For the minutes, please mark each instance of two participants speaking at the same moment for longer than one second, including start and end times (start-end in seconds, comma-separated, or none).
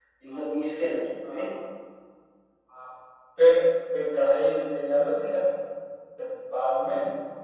none